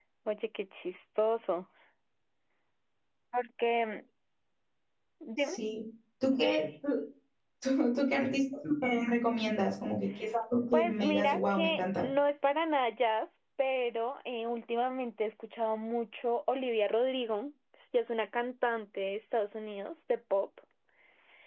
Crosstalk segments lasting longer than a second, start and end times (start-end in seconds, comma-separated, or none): 10.7-12.1